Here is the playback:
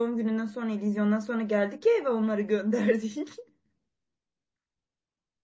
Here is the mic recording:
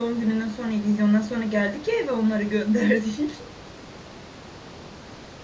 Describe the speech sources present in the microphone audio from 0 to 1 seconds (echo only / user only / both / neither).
echo only